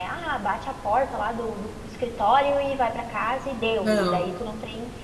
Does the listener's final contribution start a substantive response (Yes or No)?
No